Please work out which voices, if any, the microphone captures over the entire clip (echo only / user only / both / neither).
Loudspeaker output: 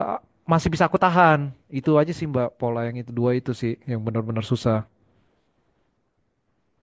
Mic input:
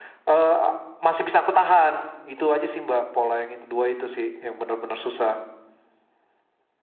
echo only